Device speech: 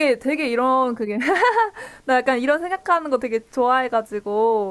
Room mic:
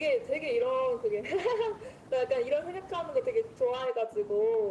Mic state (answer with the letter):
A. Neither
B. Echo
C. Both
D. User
B